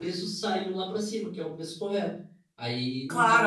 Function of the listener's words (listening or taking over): taking over